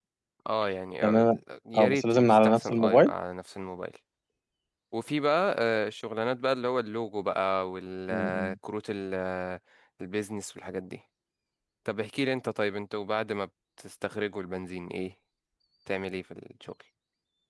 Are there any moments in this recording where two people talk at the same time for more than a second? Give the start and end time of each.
1.8-3.1

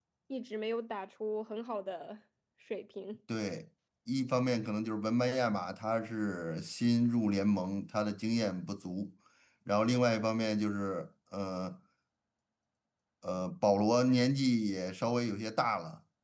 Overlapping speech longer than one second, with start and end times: none

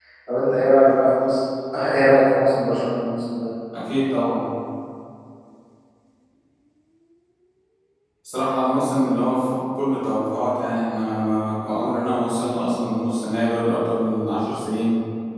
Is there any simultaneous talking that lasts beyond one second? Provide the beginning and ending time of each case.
none

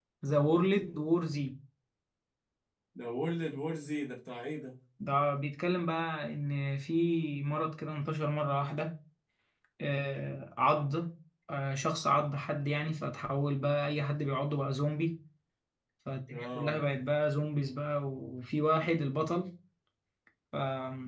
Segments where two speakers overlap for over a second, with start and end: none

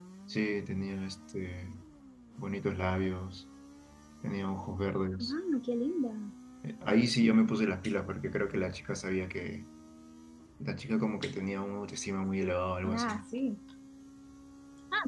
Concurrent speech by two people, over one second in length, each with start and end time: none

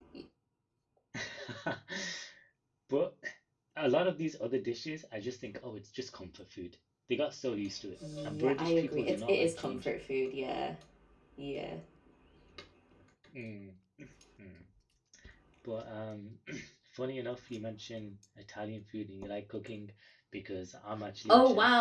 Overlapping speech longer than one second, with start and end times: 8.2-9.9

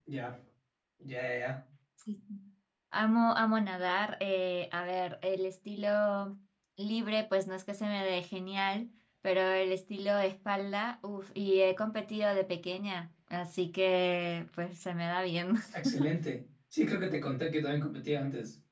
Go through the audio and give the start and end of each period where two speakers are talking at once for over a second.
none

